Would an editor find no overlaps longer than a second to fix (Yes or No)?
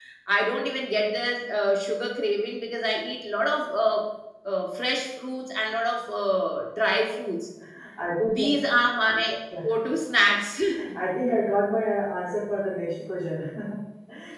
Yes